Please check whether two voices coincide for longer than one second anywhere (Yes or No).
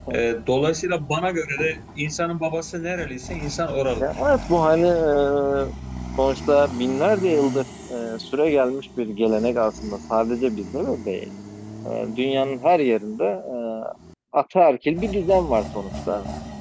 No